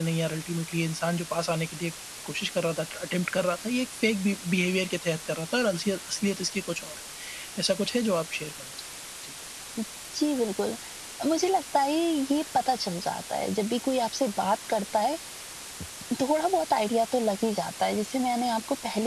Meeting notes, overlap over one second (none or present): none